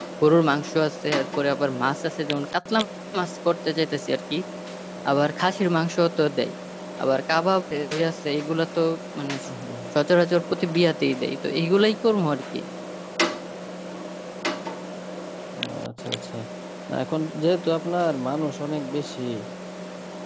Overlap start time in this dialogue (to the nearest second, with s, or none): none